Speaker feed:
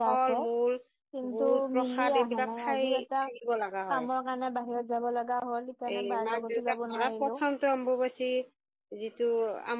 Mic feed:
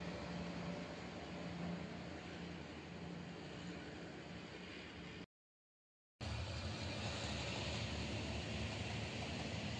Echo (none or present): none